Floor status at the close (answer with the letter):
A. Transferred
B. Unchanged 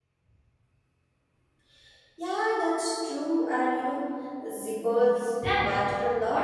A